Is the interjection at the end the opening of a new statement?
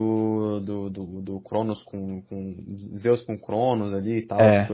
No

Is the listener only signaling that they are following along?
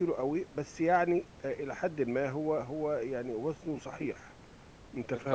No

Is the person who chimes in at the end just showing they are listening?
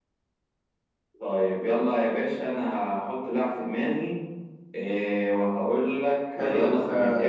No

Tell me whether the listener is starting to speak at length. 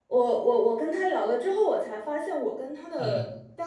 No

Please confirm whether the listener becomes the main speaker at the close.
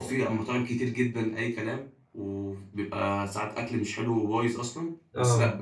No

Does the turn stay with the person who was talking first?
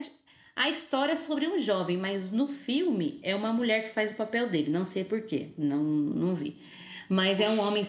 Yes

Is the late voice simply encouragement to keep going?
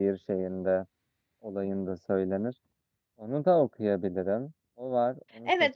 No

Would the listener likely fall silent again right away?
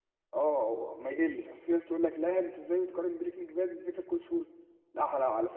Yes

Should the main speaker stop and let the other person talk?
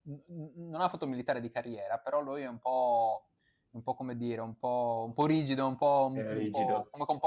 No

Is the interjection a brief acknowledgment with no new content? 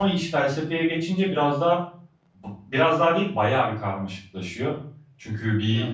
Yes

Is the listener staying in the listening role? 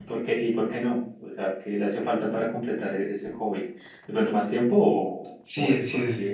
No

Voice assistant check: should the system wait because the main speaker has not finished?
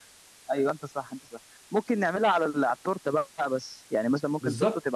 No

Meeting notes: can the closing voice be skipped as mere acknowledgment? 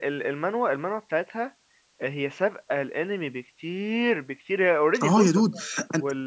No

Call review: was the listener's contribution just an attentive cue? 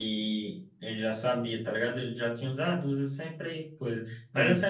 Yes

